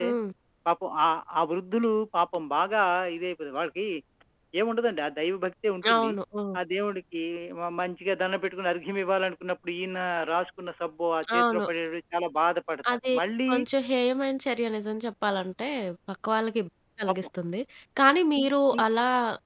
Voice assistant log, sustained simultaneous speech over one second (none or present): none